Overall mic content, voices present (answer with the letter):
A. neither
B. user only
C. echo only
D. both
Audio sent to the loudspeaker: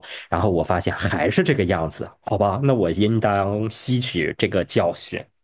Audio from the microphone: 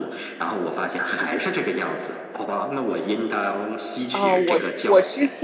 D